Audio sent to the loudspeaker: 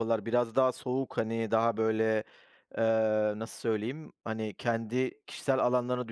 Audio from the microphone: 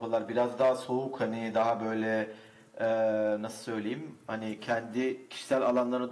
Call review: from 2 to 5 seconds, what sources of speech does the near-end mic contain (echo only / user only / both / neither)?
echo only